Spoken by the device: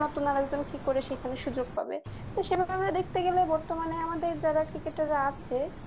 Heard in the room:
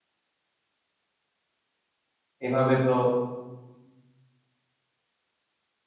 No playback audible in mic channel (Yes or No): Yes